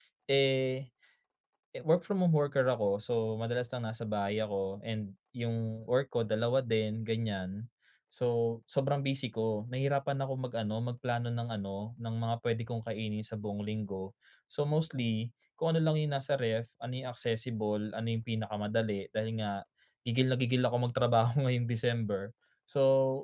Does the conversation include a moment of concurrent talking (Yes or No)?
No